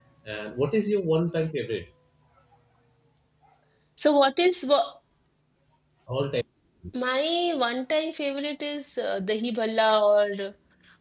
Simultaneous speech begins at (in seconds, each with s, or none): none